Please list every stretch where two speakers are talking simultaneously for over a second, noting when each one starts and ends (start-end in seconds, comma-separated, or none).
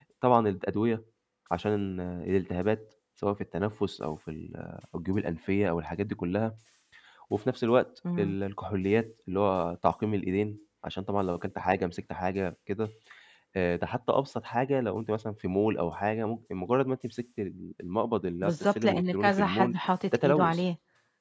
18.4-19.7